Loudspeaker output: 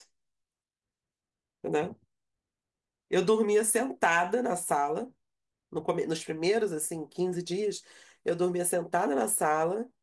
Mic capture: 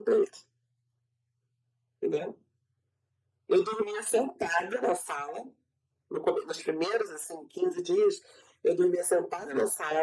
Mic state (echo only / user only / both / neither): echo only